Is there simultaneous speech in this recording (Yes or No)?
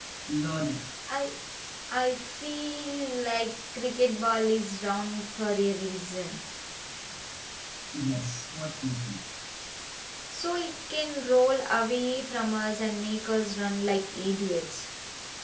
No